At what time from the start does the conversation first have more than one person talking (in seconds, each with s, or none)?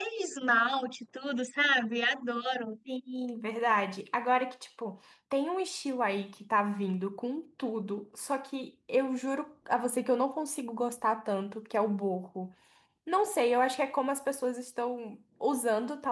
none